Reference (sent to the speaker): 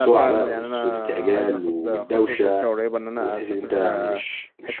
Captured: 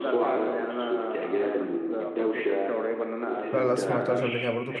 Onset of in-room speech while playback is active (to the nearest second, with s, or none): 4 s